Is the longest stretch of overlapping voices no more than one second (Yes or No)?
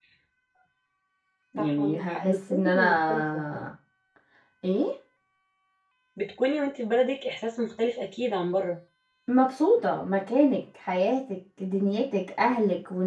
No